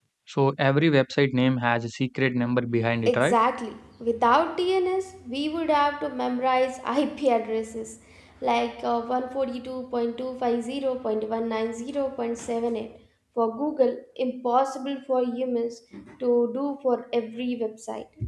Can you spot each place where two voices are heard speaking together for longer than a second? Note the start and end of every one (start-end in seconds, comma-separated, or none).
none